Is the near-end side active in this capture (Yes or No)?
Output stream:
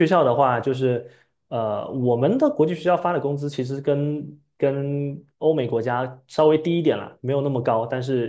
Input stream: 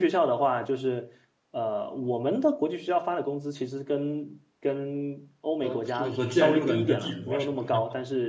Yes